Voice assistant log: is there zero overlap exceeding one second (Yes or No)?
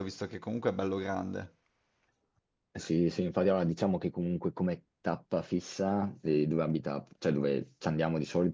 Yes